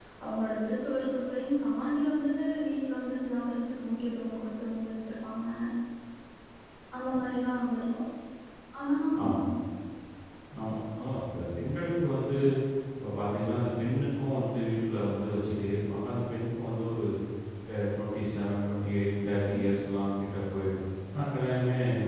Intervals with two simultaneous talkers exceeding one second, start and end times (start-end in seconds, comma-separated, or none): none